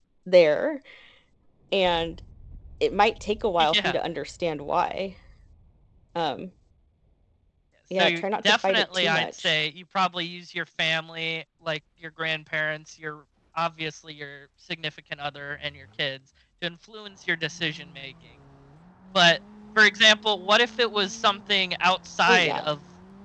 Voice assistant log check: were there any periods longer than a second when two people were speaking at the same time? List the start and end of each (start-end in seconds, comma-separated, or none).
8.0-9.5